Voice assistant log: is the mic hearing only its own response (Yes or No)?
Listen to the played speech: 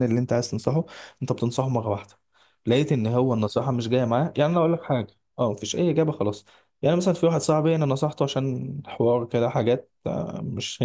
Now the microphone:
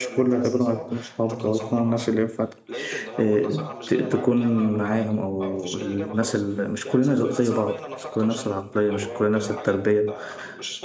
No